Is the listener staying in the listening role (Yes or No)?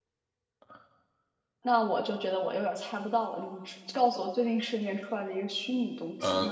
No